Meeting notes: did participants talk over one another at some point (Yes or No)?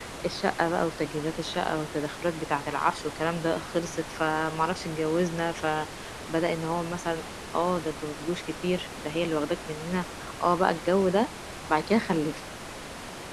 No